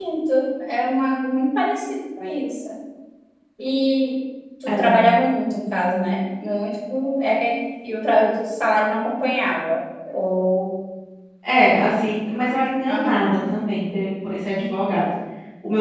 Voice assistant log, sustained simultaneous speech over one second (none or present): none